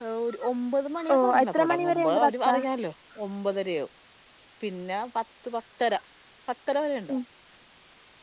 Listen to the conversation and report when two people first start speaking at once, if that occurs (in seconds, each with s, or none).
1.2 s